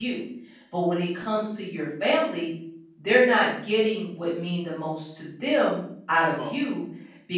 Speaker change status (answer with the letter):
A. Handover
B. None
B